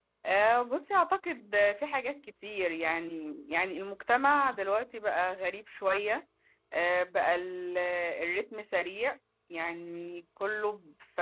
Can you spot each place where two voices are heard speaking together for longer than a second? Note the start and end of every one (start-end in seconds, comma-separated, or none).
none